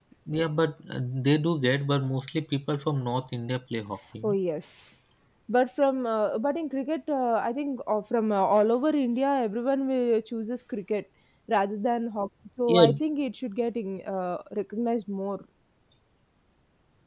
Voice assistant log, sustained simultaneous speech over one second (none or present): none